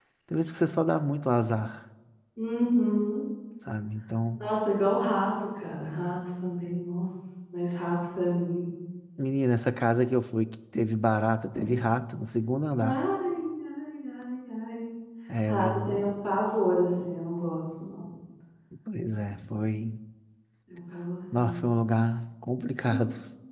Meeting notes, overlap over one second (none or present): none